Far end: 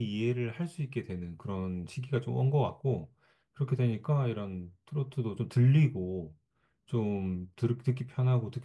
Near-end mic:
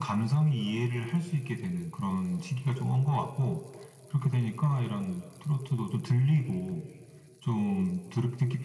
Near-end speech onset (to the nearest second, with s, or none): none